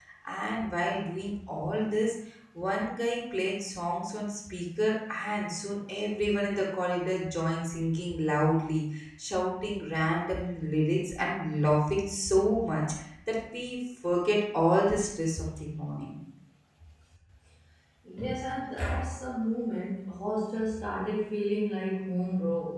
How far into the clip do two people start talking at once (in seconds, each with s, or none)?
none